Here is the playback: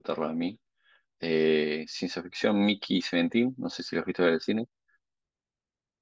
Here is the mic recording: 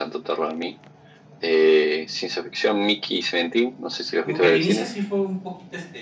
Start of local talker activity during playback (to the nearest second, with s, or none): 4 s